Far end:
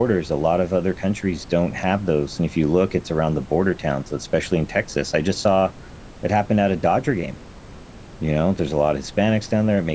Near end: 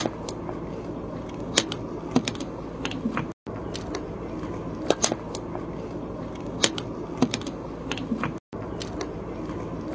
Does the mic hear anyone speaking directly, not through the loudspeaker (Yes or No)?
No